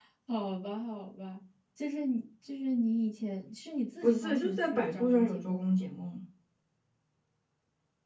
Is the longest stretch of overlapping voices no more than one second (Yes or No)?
No